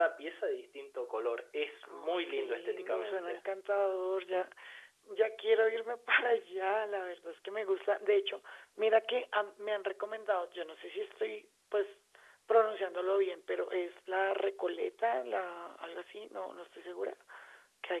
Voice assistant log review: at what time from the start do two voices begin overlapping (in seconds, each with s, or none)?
1.8 s